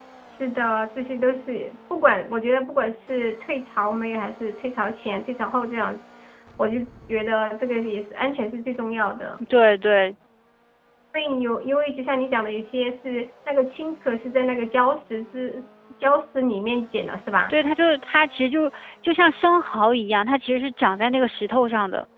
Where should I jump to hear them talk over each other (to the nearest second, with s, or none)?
none